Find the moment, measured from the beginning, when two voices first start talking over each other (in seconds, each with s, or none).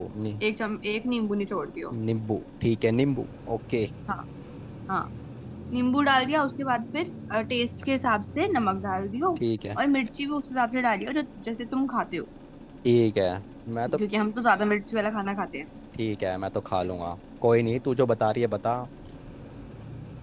none